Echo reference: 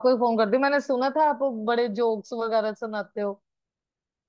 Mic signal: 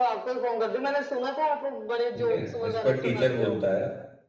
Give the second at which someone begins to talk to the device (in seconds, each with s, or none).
2.1 s